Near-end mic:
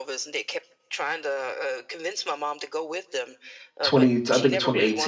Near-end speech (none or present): present